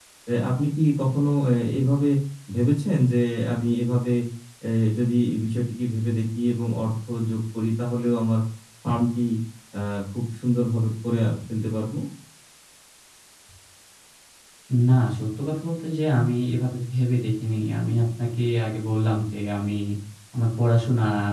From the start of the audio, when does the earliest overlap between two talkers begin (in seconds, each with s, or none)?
none